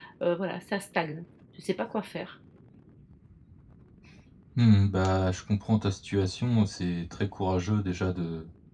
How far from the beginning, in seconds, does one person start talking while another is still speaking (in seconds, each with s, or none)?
none